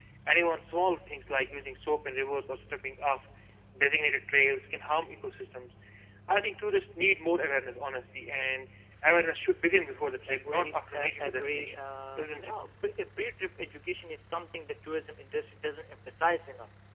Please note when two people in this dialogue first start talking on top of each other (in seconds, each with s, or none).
10.3 s